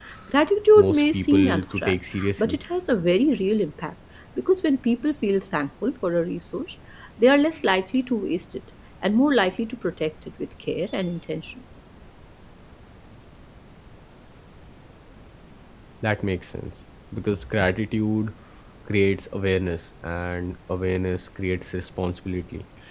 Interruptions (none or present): present